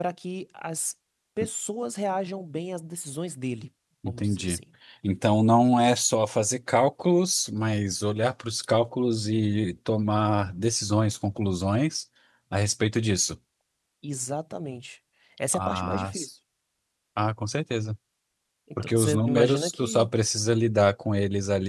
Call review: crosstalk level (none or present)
present